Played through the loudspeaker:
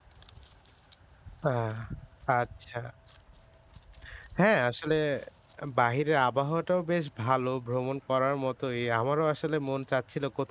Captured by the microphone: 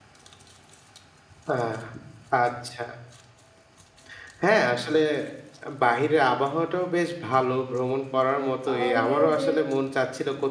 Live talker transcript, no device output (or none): আমার মনে হয় যে